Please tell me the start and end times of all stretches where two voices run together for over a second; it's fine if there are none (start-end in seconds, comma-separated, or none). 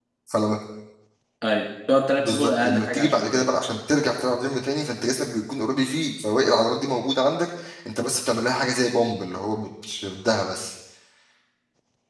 2.2-3.4